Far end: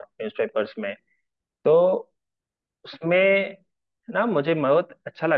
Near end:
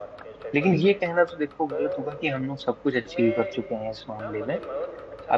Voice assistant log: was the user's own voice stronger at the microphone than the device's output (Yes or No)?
Yes